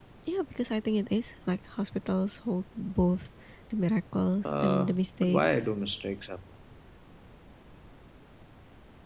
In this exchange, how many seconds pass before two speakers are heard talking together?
4.5 s

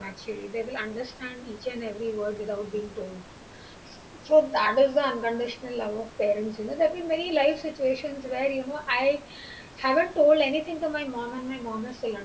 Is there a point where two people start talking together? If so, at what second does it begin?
none

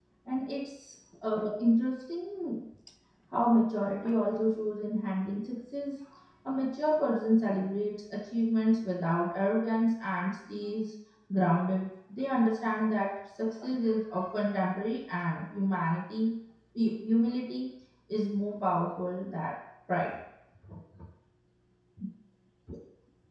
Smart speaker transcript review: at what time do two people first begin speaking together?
none

